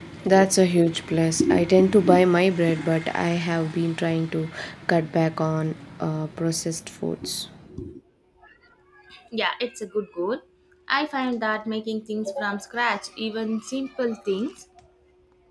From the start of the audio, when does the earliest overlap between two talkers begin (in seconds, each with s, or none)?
none